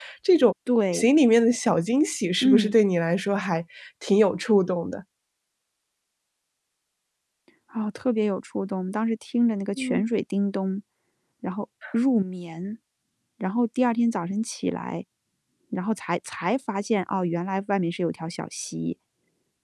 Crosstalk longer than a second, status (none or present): none